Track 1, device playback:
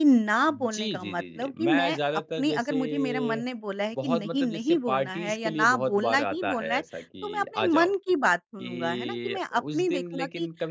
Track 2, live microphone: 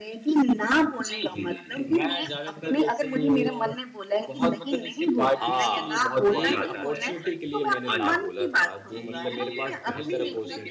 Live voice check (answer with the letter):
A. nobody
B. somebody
B